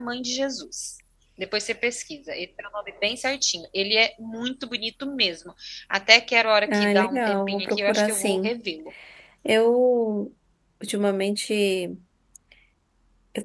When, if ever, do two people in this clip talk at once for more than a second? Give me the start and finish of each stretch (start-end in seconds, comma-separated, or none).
6.7-8.5